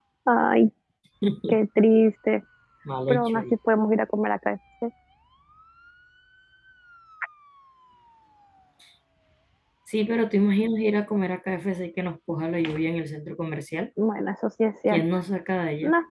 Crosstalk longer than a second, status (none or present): none